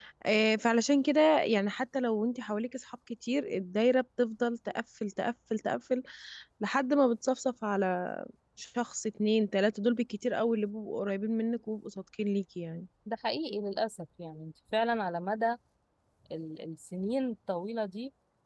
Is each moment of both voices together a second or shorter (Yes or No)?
Yes